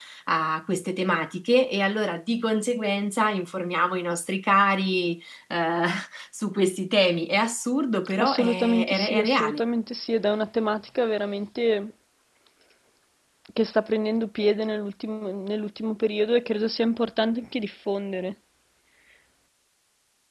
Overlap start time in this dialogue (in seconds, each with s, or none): 8.2 s